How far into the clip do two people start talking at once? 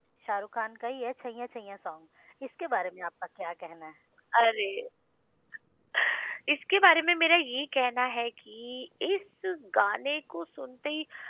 none

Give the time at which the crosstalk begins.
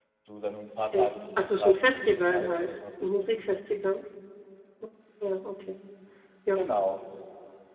1 s

